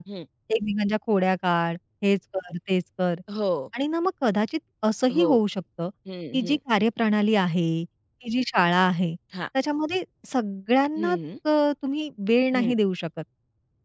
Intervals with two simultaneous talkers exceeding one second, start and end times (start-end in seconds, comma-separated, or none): none